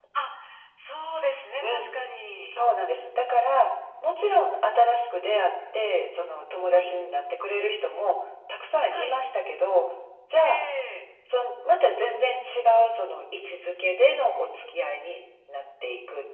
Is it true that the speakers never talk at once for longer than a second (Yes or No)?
Yes